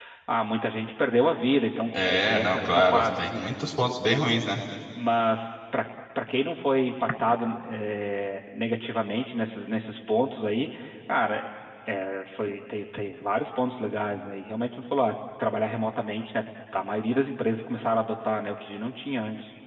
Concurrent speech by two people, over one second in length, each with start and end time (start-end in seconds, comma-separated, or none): 2.0-3.3